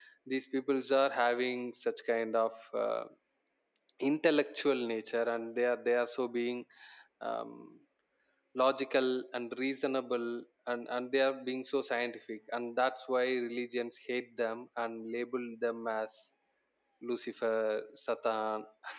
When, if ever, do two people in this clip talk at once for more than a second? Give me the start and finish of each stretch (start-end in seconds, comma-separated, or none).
none